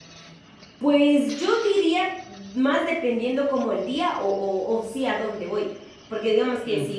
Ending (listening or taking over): listening